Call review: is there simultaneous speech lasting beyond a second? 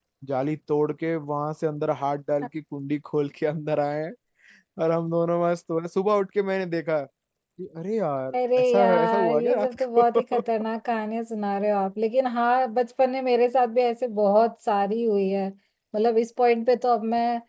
Yes, from 8.3 s

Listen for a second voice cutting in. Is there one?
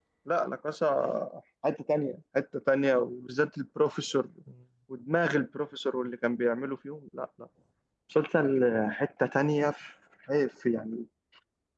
No

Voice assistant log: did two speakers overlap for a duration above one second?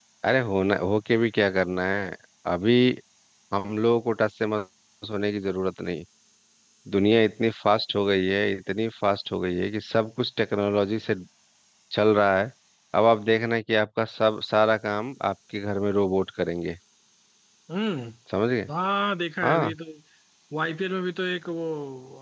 No

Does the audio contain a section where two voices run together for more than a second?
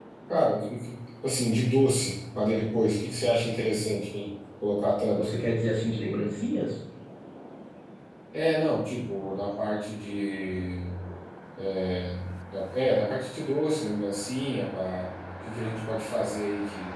No

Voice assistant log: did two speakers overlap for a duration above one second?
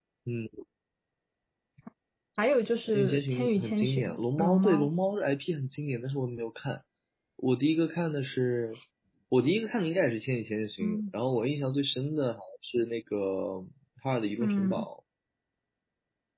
Yes, from 2.9 s

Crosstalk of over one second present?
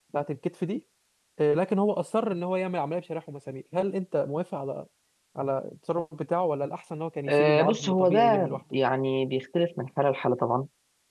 Yes, from 7.3 s

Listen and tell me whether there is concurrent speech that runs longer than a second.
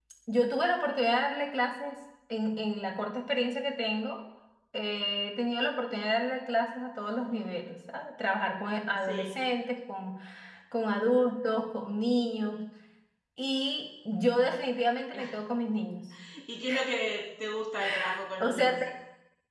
No

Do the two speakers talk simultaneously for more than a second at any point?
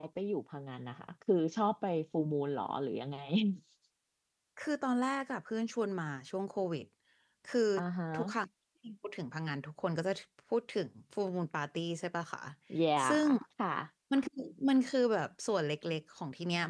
No

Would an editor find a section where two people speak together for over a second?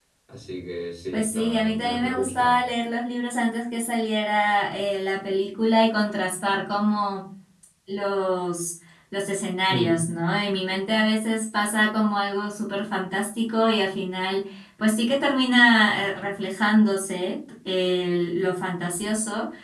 Yes, from 1.1 s

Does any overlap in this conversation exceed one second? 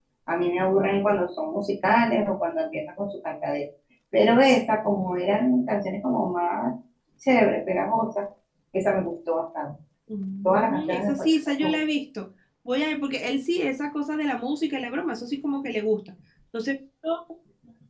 Yes, from 10.4 s

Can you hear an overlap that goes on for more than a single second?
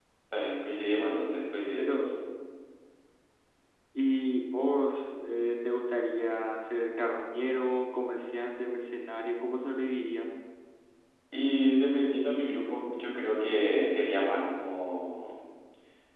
No

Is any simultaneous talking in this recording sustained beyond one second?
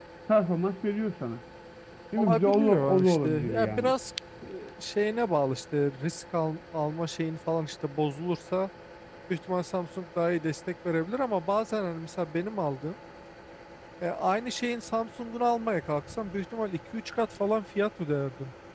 Yes, from 2.2 s

